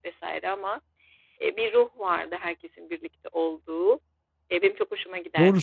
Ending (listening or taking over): taking over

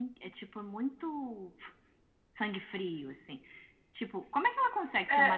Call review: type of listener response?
listening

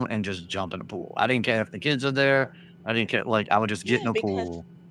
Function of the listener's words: taking over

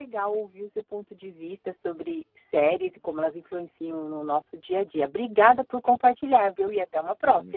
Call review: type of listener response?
taking over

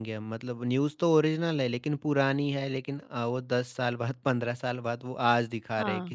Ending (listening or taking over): taking over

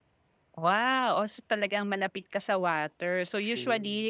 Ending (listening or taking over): listening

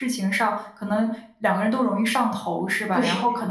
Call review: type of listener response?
listening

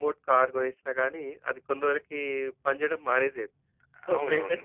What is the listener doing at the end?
listening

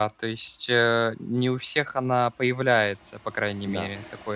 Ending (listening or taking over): taking over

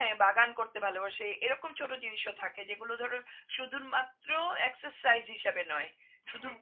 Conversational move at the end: listening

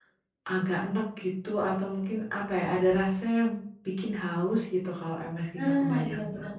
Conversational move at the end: taking over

